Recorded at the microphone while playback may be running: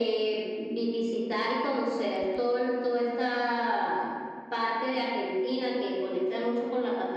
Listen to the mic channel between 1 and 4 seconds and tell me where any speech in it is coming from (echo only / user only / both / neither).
echo only